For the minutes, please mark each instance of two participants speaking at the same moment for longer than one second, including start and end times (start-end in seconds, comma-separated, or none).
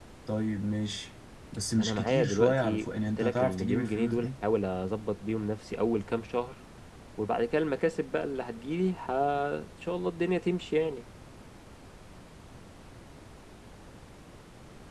1.7-4.3